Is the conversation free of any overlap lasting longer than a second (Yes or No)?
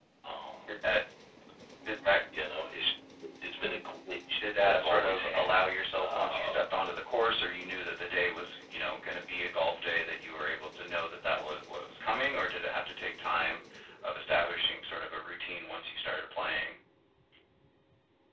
No